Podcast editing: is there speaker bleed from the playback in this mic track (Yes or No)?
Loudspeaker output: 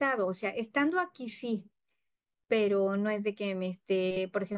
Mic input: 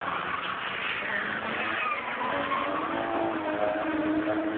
No